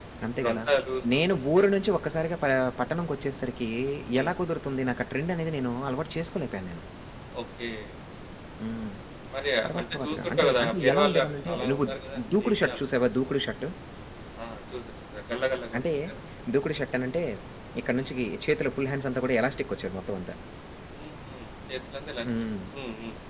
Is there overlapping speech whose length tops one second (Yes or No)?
Yes